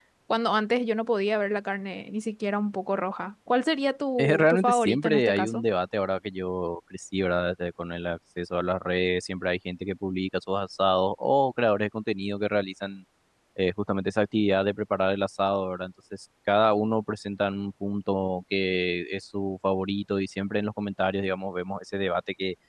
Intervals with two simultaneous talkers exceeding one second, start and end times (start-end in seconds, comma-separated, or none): 4.2-5.6